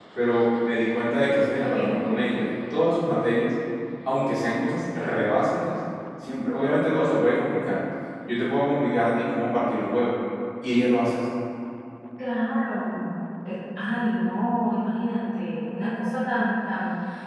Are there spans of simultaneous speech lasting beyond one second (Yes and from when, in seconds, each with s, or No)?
No